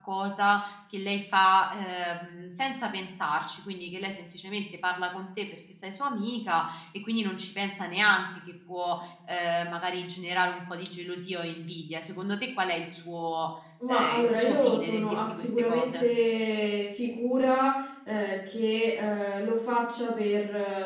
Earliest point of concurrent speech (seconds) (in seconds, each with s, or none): 13.8 s